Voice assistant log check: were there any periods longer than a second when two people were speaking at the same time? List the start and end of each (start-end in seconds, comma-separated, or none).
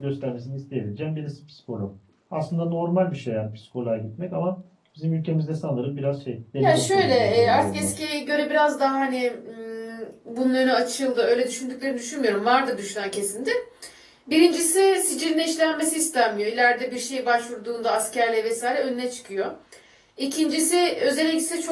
6.6-7.9